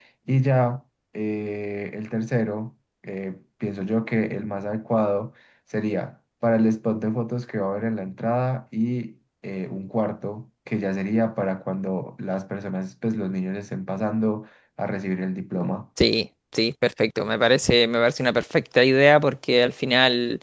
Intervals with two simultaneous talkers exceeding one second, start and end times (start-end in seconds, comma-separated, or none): none